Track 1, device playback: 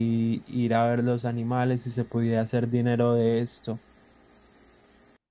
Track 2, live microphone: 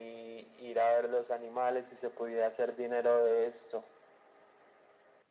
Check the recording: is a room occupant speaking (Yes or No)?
No